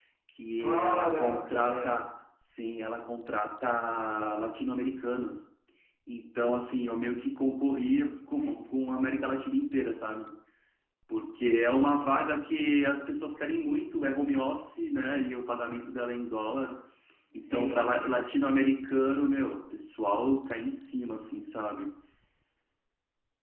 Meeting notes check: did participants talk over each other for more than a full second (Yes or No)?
Yes